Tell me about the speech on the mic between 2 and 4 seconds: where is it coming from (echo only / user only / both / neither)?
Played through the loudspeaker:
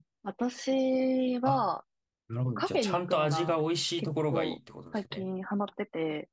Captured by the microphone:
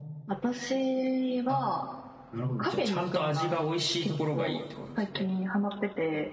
echo only